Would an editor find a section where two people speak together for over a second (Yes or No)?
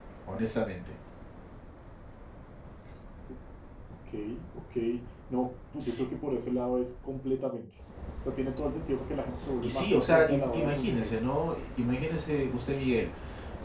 Yes